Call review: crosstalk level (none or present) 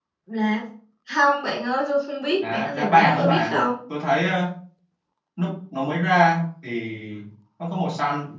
present